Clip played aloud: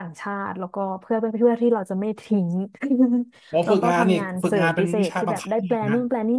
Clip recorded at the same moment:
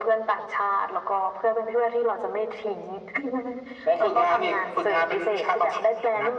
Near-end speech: none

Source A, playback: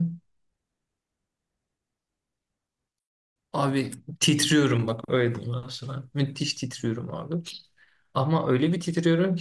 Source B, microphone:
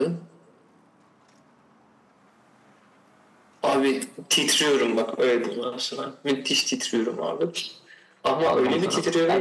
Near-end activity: present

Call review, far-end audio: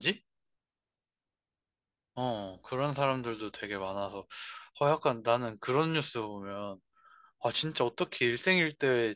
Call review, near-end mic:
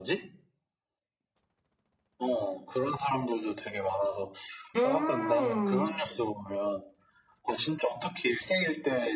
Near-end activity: present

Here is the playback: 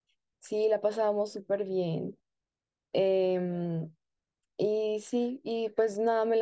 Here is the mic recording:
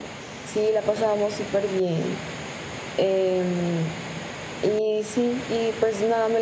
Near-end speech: none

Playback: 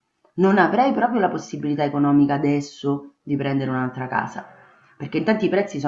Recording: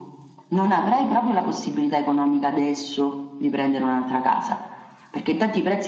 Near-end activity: none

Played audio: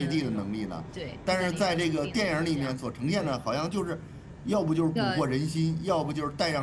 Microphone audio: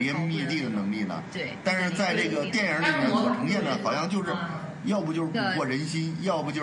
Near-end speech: present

